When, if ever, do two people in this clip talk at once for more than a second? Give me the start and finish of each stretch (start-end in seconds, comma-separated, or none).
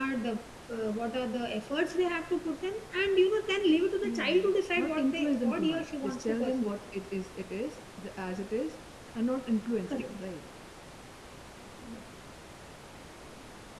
4.0-6.7